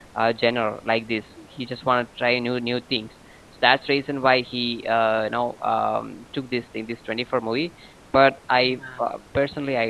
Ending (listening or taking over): listening